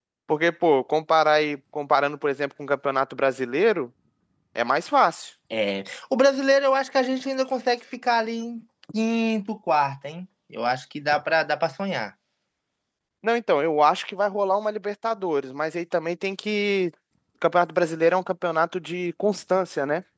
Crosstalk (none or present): none